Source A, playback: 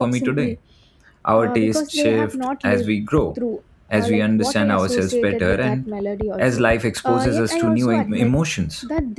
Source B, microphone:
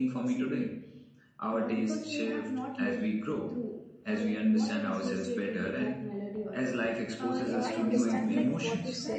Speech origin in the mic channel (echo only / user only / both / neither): both